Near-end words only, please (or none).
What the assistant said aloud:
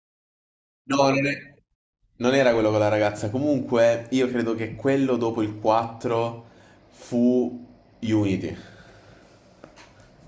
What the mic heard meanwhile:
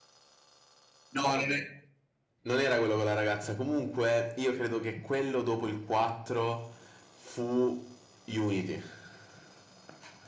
none